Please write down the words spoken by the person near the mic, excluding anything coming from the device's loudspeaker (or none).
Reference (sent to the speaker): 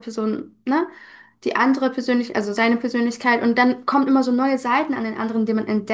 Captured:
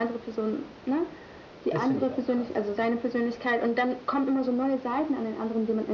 Das finde ich auch krass heftig.